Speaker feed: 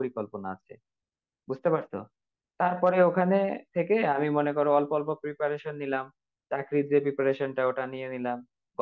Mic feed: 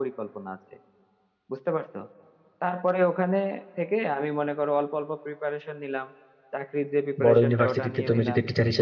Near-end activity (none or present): present